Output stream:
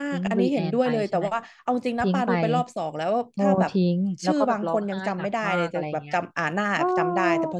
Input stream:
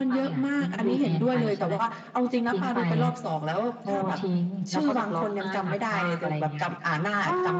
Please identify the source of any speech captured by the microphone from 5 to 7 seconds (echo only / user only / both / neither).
echo only